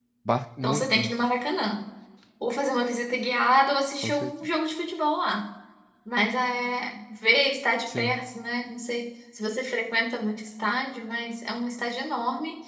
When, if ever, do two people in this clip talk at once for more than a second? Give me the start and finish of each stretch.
none

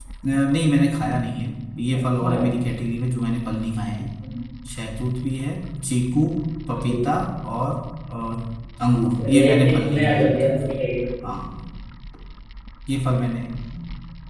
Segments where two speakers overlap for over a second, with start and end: 9.3-10.5

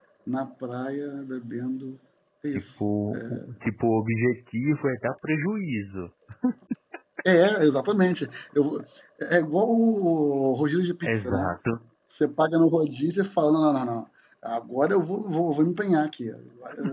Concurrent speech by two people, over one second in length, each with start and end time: none

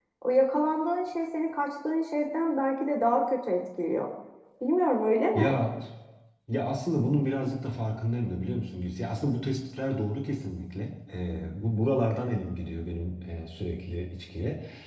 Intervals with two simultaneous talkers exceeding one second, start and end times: none

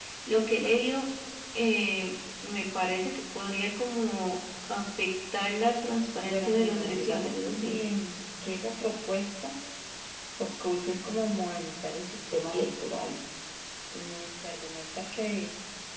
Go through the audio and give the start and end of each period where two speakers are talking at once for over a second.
6.2-7.8

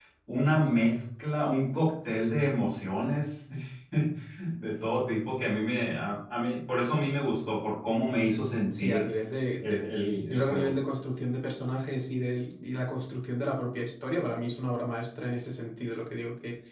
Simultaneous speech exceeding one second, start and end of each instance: none

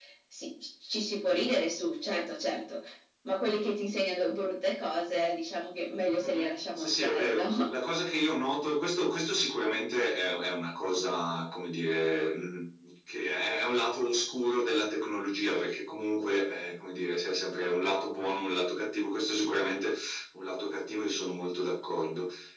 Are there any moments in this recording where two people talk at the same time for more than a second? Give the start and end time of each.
6.2-7.6

